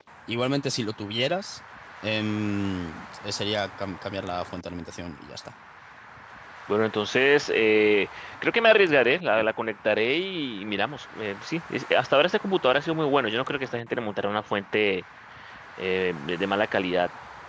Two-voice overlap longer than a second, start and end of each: none

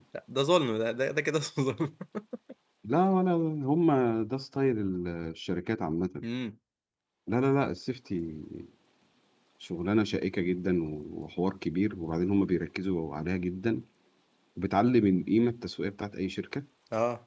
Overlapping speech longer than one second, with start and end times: none

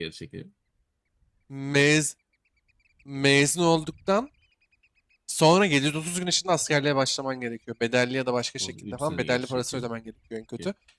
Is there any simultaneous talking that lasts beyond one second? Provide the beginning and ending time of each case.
8.6-9.9

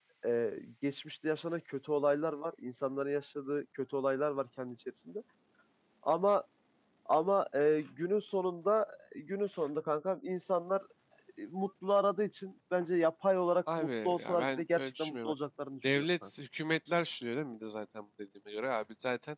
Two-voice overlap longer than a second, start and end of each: 13.8-15.3

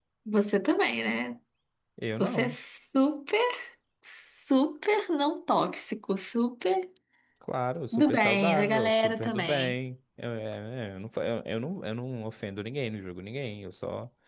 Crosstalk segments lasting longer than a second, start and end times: 7.9-9.8

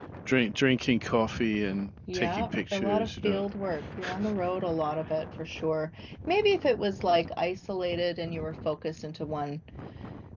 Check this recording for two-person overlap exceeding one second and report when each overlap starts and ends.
2.1-3.4

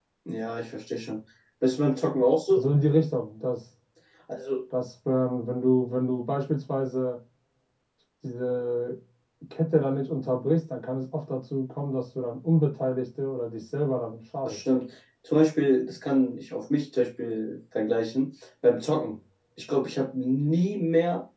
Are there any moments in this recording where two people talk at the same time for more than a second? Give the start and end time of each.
none

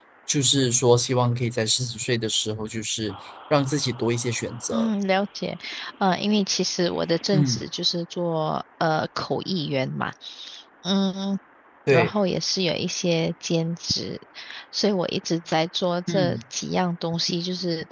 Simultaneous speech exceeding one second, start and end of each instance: none

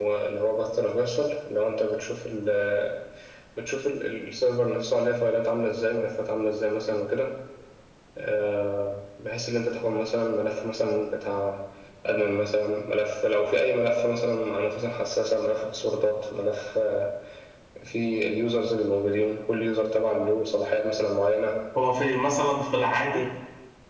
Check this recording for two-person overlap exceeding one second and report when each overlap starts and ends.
none

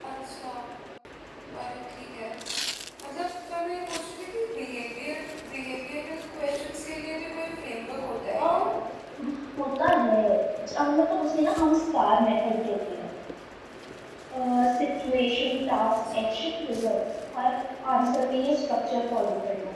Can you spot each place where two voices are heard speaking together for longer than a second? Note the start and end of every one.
none

